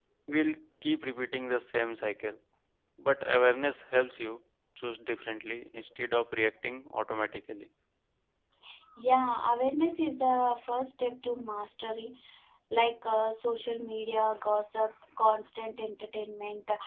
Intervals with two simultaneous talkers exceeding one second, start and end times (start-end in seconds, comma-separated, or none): none